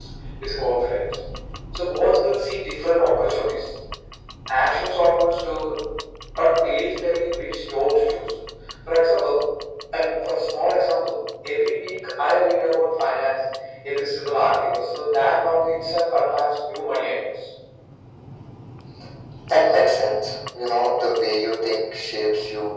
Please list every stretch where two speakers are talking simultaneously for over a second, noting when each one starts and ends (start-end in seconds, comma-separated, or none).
none